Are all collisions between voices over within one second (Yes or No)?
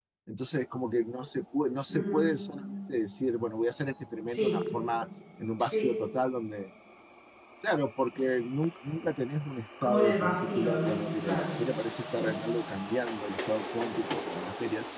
No